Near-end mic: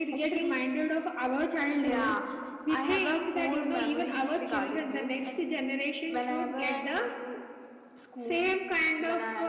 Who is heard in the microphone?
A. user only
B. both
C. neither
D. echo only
D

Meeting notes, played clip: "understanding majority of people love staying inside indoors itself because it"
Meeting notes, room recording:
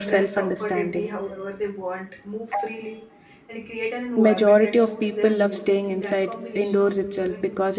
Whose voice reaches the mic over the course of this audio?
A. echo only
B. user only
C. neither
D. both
D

